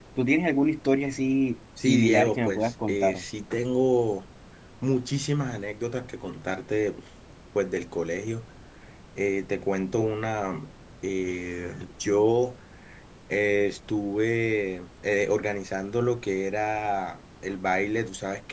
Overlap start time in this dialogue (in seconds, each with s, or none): 1.8 s